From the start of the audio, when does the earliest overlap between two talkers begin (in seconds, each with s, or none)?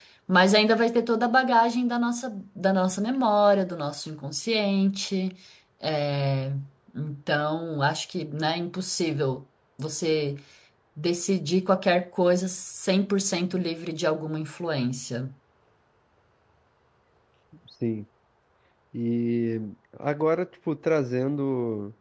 none